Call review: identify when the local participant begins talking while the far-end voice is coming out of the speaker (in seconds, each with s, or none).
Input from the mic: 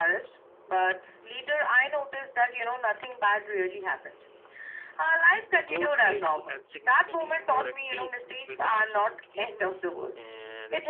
5.6 s